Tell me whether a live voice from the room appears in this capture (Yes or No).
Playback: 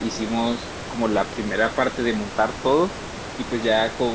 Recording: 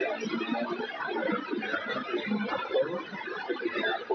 No